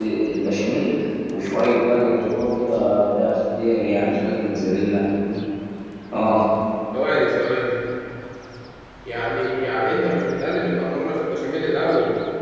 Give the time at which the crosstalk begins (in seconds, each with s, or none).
none